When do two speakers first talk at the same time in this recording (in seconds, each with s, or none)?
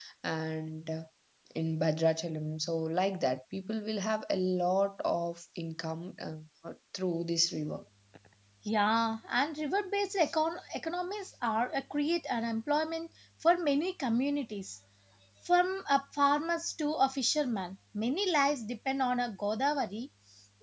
none